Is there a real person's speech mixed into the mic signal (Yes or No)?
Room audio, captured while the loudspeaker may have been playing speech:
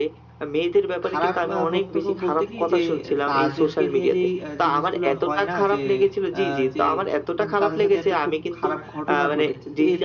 Yes